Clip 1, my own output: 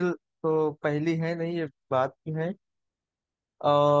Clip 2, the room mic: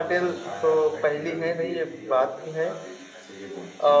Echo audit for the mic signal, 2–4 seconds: both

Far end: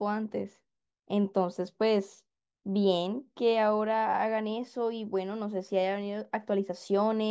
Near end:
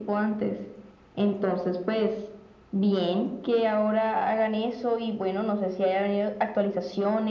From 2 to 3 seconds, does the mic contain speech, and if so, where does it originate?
echo only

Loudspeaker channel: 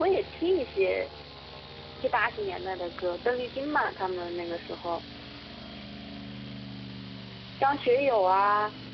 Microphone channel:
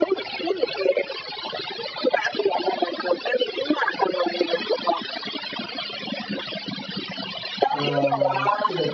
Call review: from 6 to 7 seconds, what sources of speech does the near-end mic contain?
neither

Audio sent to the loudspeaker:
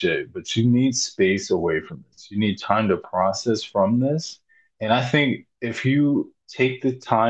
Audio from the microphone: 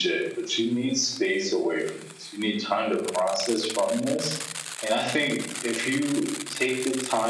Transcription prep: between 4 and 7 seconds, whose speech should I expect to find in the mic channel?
echo only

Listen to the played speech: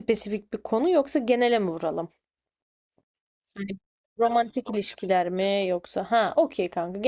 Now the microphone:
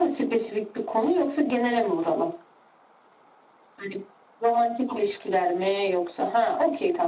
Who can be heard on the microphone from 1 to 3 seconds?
echo only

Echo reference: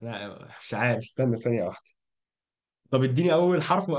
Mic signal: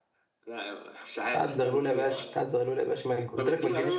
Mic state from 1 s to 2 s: both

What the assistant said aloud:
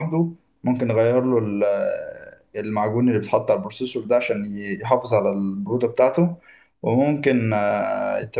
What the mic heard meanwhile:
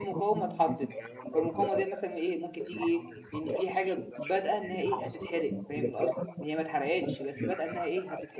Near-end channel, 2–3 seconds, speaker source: both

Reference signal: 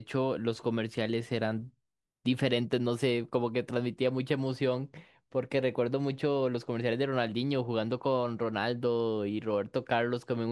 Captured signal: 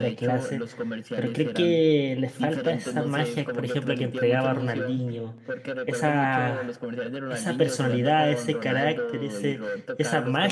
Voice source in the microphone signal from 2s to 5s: both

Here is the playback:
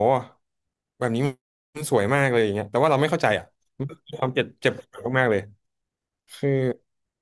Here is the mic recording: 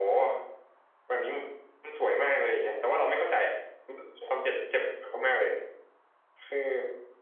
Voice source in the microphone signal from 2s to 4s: echo only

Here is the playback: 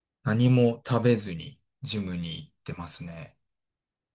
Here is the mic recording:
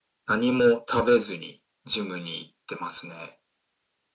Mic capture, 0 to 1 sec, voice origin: echo only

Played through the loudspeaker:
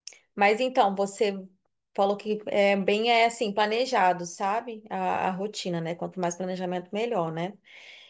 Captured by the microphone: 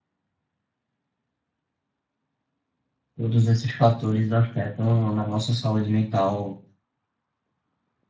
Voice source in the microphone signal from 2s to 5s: user only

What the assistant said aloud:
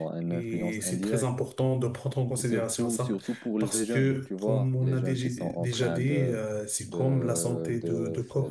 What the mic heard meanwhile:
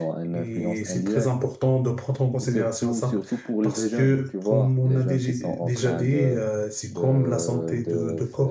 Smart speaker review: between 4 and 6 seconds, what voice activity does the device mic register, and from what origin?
echo only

